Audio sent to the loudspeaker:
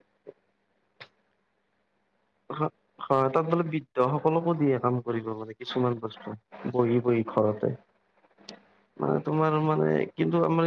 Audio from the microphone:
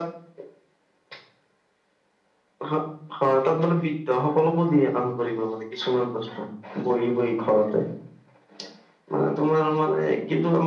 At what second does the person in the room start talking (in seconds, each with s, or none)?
none